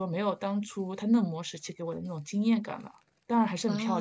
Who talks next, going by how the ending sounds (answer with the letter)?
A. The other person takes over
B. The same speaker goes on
A